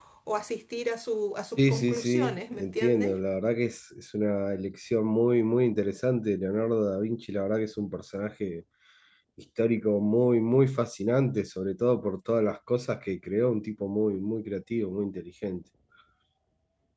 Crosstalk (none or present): present